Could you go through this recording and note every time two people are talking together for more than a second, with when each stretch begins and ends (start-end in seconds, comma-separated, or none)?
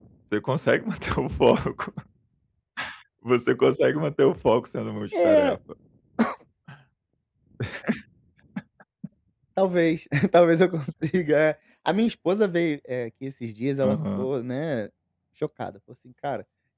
none